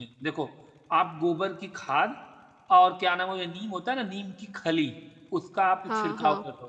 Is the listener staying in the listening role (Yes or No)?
Yes